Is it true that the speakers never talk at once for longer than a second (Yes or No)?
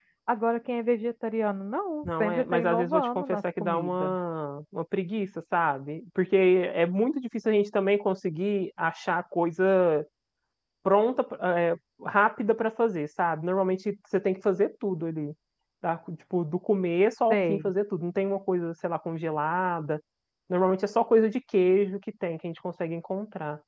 No